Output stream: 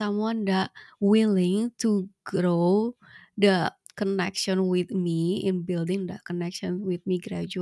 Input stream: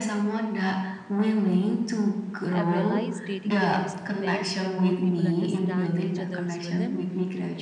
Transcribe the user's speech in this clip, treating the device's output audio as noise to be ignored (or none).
I've realized dating works best when both people understand each other's rhythm